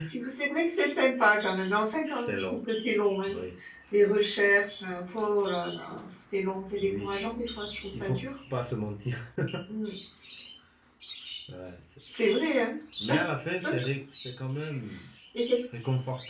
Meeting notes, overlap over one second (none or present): none